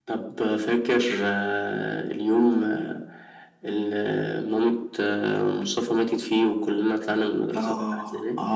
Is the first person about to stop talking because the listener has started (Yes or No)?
Yes